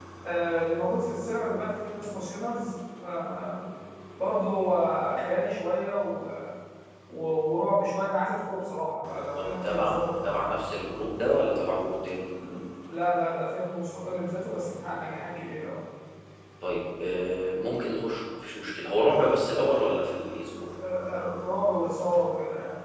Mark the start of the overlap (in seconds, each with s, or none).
9.3 s